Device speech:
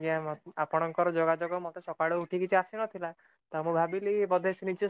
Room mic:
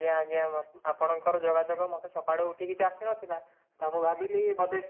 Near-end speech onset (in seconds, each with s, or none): none